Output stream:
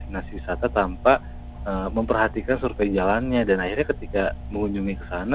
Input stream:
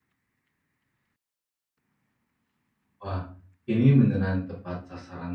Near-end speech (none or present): present